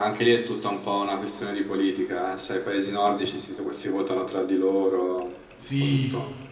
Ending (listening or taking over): taking over